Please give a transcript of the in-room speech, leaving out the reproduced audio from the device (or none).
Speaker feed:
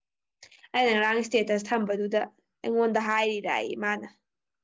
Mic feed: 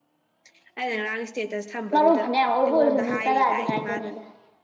ꯃꯔꯨ ꯐꯅꯌꯥꯝ ꯑꯣꯏꯕ ꯑꯣꯏꯔꯁꯨ ꯃꯤꯅꯤꯠ ꯇꯔꯥꯗꯤ ꯉꯥꯏꯖꯅꯤꯗ